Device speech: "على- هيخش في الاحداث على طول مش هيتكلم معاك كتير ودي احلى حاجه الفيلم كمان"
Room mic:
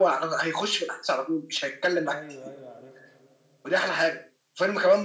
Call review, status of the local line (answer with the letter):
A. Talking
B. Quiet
A